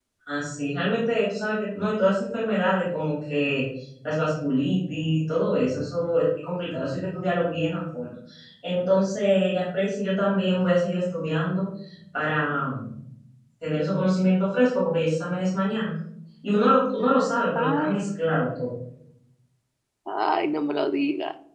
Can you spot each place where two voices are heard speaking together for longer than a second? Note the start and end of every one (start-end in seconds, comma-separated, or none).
none